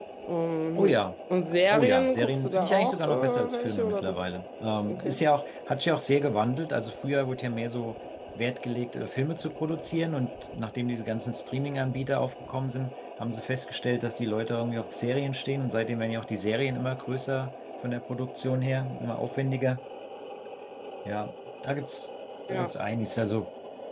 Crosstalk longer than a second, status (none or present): present